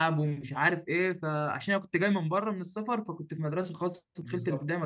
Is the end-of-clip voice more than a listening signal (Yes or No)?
Yes